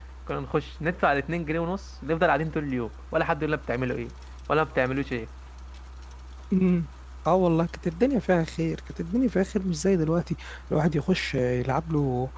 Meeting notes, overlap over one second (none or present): none